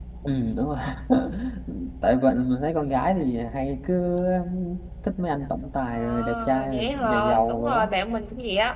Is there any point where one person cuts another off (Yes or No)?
Yes